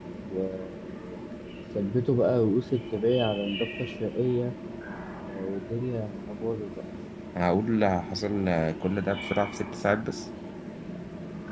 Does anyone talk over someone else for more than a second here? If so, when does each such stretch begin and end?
none

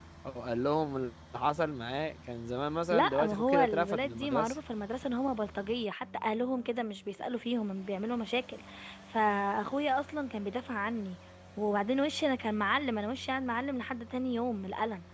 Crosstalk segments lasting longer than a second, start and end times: 2.9-4.6

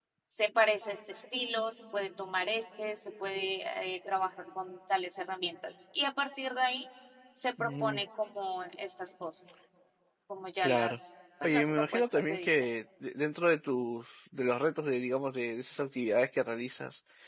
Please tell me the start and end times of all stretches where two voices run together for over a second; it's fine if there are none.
11.4-12.7

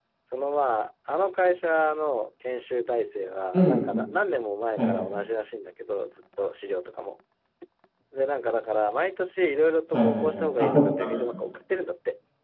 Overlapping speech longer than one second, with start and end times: 9.9-11.2

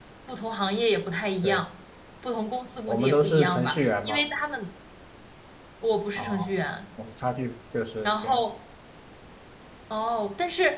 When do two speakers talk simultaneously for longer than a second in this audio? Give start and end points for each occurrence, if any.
2.9-4.2

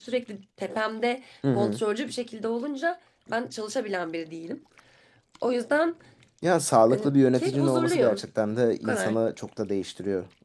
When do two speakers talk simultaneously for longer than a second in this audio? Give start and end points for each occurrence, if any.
6.9-8.3

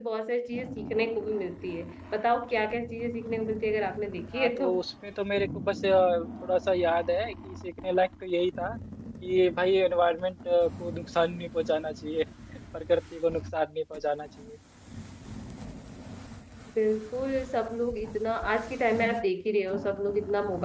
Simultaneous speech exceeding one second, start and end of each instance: none

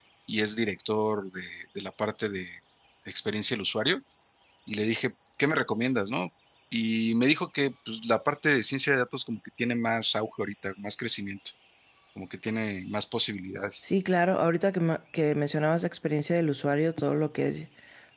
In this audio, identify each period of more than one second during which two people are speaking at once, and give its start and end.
none

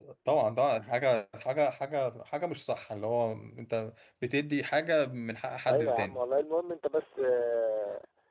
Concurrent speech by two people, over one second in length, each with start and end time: none

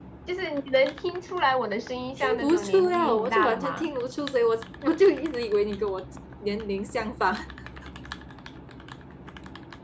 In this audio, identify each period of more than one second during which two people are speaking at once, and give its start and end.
2.2-3.9

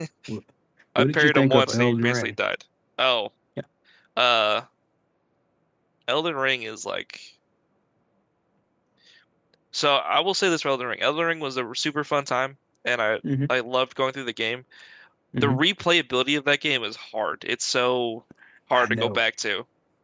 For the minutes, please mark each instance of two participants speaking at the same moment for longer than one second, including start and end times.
1.0-2.3

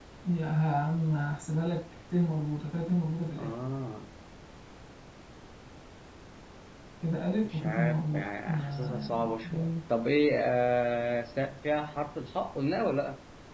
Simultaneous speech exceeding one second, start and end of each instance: 7.4-9.7

